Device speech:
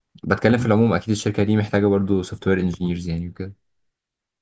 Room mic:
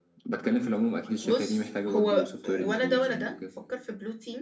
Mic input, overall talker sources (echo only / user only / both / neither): both